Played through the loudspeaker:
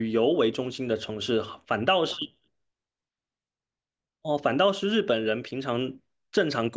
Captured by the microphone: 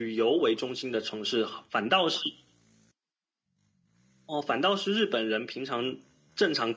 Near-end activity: none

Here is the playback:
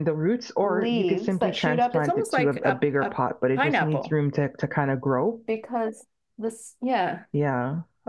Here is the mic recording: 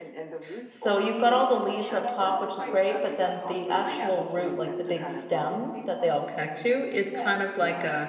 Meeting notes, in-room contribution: present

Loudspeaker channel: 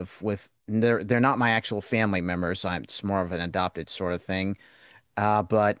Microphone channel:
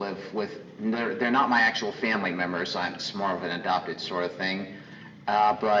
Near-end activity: none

